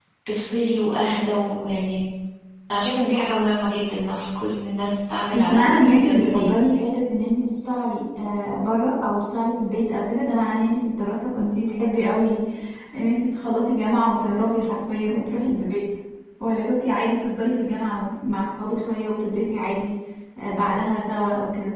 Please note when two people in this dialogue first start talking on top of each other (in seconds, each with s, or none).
5.3 s